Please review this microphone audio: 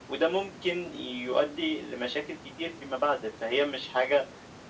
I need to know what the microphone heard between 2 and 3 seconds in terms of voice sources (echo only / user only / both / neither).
echo only